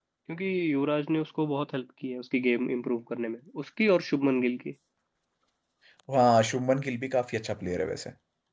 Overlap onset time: none

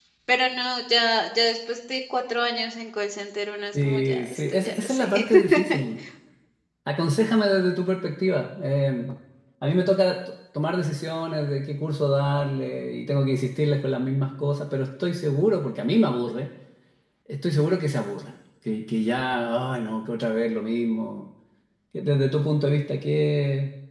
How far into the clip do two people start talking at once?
3.7 s

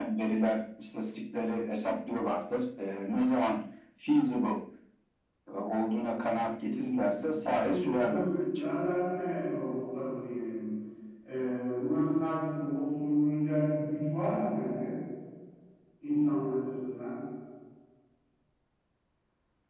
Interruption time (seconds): 6.6 s

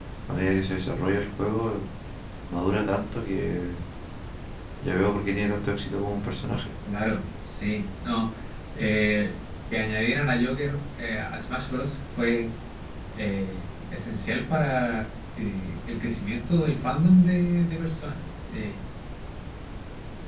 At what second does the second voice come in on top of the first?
none

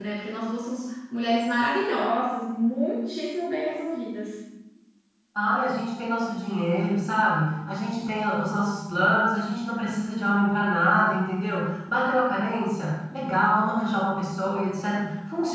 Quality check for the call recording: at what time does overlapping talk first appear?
none

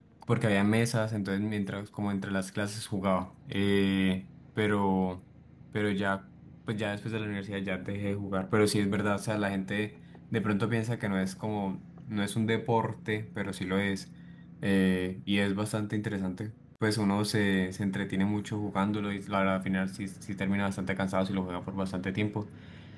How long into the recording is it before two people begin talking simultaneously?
none

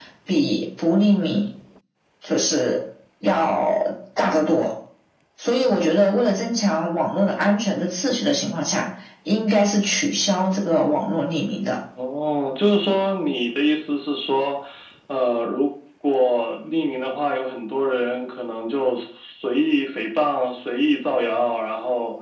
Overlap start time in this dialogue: none

